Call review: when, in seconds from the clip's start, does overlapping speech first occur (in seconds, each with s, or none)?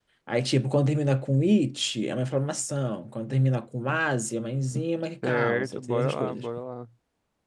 5.2 s